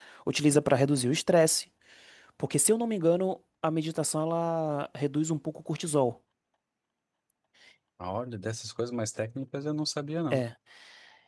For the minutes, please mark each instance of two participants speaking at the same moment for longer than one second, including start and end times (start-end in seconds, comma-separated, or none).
none